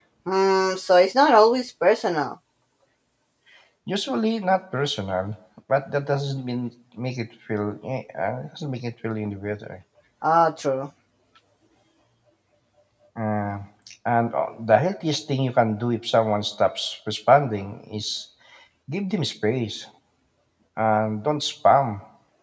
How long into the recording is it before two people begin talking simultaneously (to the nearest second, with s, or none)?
none